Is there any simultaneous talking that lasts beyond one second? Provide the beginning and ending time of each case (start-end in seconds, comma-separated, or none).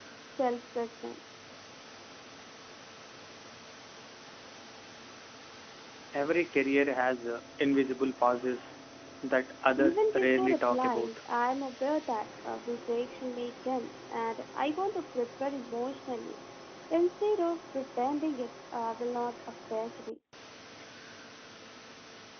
9.8-11.1